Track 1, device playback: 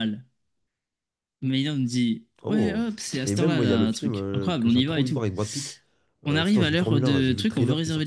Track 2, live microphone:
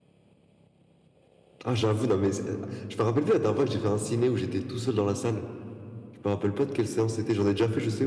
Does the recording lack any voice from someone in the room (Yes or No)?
No